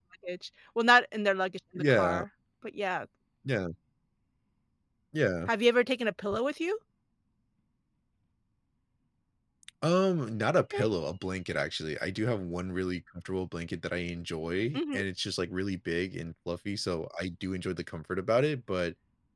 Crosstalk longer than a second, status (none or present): none